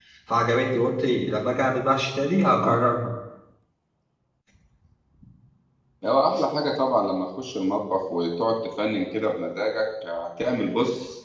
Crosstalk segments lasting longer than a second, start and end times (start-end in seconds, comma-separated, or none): none